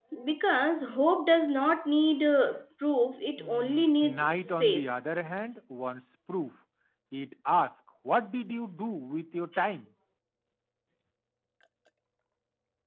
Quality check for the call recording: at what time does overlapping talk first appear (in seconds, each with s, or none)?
3.4 s